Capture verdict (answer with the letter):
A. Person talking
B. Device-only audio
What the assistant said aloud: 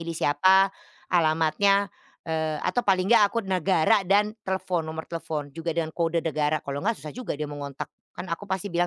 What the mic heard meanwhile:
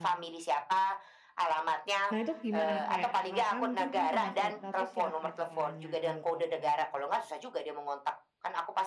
A